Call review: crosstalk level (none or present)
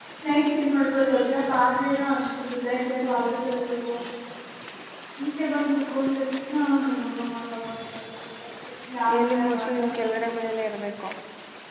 present